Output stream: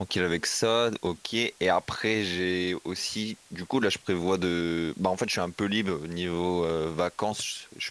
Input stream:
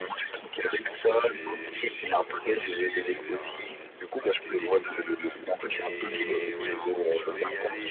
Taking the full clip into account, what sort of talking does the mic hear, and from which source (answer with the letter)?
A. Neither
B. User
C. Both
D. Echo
C